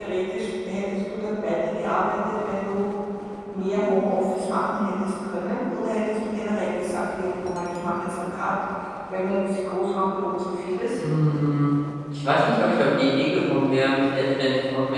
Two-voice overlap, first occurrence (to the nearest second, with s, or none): none